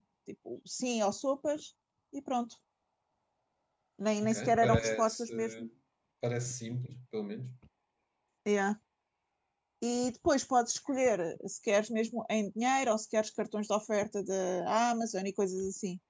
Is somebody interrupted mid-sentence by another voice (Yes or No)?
Yes